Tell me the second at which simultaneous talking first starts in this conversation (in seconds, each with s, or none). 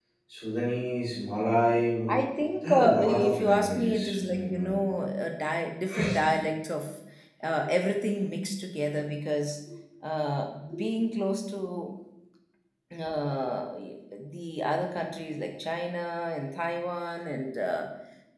2.7 s